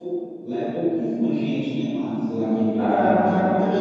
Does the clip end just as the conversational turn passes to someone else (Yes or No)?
Yes